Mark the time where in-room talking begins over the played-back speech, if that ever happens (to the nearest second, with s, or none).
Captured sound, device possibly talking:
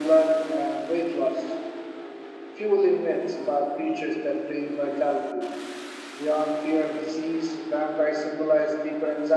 none